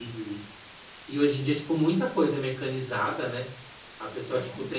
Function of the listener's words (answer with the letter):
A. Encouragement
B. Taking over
A